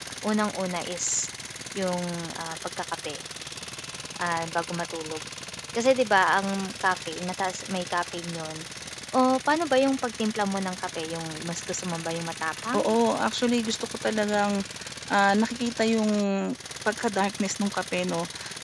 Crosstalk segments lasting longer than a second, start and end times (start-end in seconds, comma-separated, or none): none